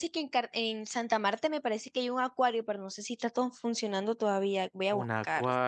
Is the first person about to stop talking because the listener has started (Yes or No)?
Yes